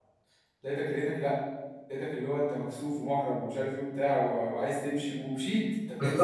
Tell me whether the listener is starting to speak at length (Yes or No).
Yes